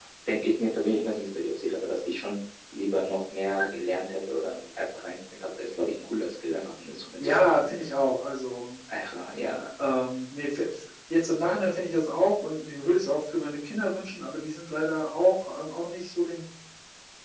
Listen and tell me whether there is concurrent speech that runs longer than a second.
No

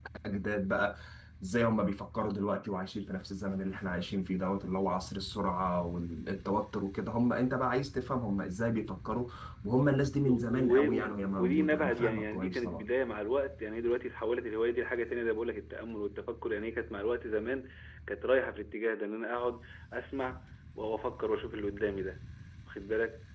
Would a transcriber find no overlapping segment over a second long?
No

